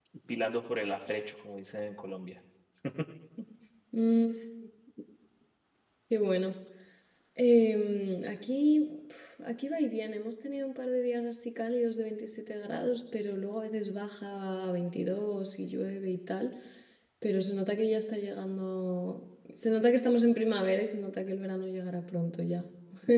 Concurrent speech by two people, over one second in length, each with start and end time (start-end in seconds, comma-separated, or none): none